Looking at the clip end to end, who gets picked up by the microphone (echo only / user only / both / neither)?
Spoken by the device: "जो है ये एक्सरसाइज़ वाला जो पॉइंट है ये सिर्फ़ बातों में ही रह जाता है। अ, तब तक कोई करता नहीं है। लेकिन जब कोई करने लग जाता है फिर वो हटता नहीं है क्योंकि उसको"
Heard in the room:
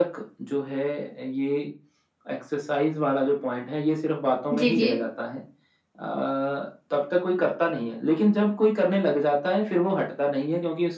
both